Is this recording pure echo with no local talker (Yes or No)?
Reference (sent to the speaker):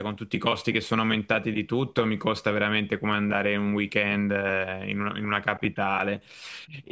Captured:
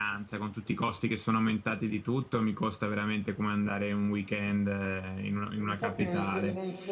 No